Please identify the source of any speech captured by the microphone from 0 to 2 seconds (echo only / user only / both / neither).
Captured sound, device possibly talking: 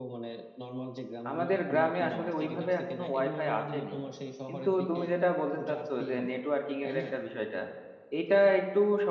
both